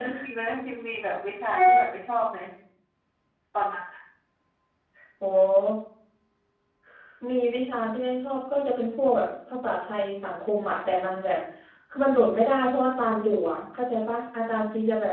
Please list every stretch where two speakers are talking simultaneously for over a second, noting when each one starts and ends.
none

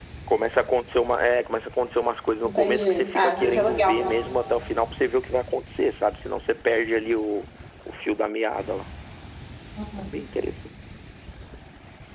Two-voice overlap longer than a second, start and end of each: 2.5-4.1

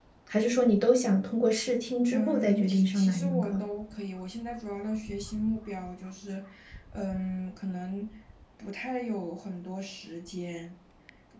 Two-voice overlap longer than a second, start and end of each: 2.1-3.6

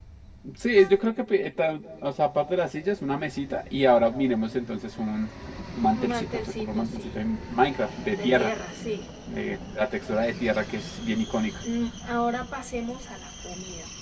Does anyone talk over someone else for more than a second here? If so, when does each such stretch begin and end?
5.9-7.2

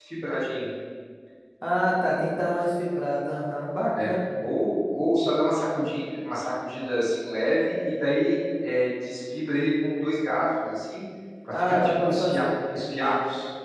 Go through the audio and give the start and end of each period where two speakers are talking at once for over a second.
11.5-12.9

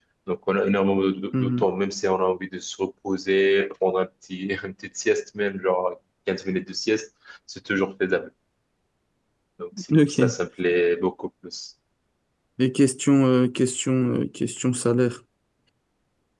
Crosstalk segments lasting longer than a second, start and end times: none

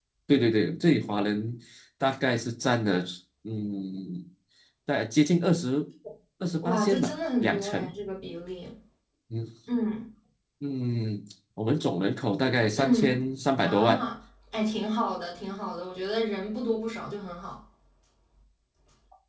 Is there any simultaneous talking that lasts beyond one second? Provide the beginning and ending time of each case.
6.6-7.9

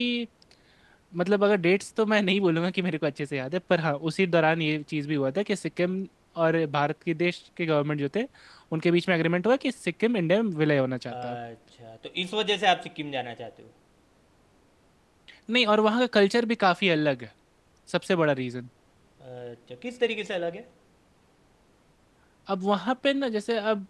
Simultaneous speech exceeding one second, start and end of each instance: none

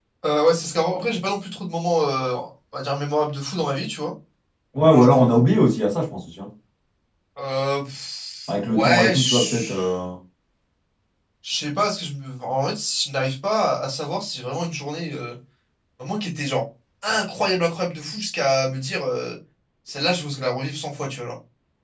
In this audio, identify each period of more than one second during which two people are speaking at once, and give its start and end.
8.5-9.7

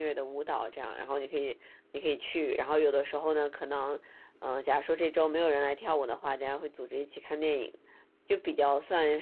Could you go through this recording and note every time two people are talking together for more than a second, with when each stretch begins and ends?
none

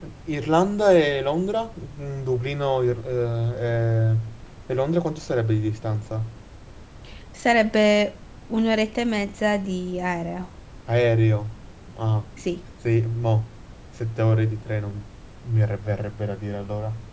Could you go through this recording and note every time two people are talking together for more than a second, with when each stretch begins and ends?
none

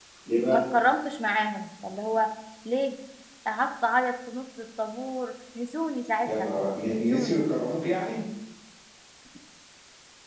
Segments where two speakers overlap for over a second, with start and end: none

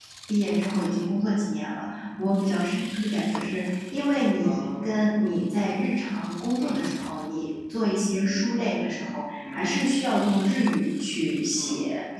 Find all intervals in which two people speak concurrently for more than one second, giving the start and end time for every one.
none

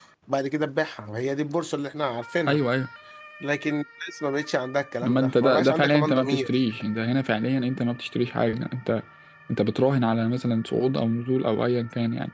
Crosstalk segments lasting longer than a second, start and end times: 5.0-6.5

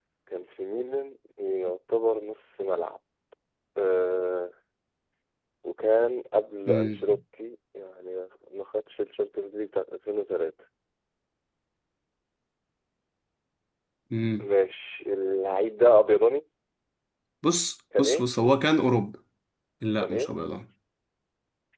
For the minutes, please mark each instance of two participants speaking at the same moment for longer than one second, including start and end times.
none

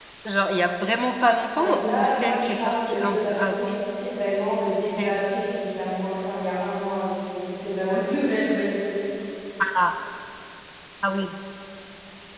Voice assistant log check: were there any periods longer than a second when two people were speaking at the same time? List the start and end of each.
1.6-3.8

